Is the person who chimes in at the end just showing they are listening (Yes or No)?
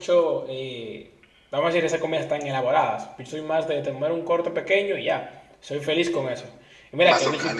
Yes